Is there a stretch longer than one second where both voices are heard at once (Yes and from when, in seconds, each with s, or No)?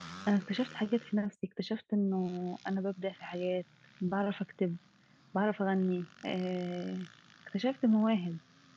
No